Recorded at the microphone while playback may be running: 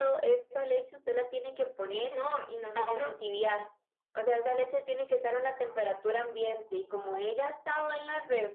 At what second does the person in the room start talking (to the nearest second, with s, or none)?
2 s